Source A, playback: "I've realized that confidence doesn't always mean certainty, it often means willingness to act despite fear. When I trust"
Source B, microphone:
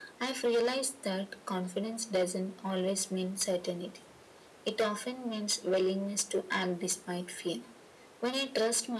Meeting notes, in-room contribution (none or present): none